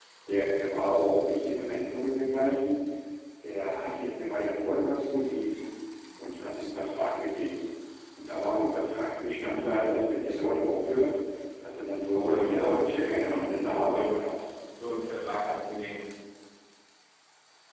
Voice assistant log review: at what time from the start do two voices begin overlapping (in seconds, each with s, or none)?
12.1 s